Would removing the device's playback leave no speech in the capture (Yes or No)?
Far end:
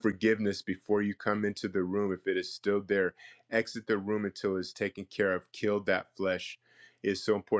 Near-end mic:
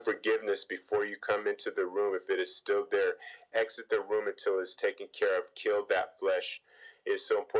Yes